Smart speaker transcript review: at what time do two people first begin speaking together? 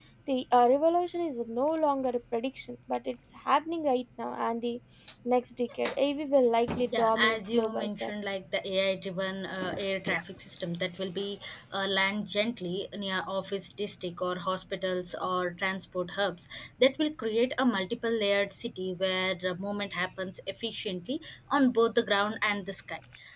6.9 s

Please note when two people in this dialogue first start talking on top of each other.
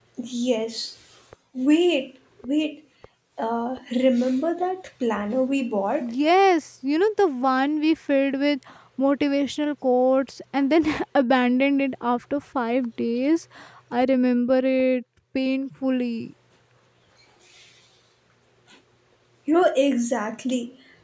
none

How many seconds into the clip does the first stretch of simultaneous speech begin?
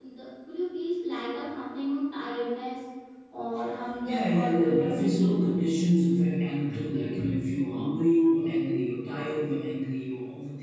4.0 s

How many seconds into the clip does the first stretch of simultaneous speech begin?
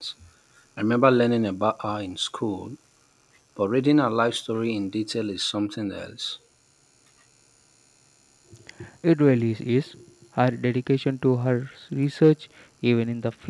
none

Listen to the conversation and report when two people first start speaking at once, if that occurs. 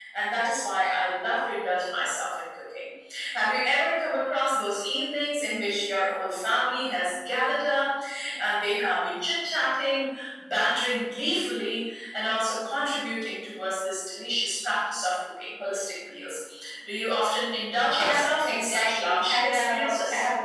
17.9 s

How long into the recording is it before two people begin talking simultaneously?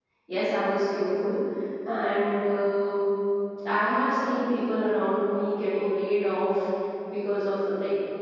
none

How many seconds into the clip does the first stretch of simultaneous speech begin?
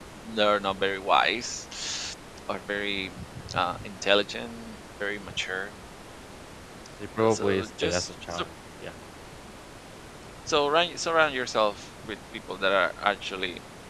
7.2 s

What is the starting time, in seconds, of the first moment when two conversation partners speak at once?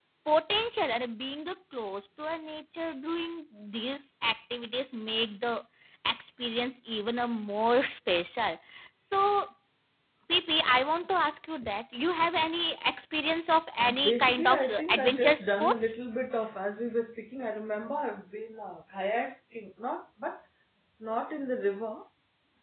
13.8 s

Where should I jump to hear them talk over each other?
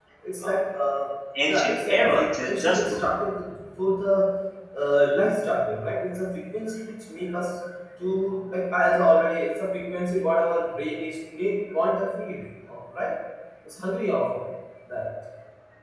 1.5 s

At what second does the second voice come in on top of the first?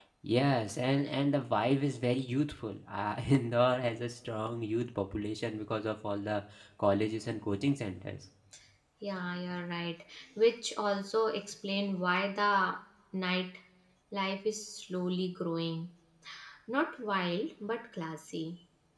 none

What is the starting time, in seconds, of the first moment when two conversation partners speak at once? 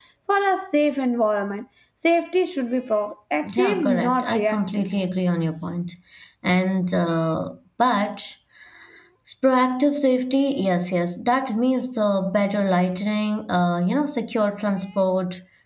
3.4 s

